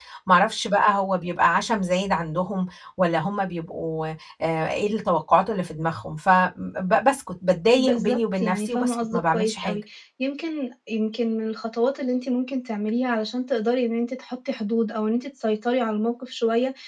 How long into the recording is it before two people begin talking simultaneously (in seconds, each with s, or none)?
7.8 s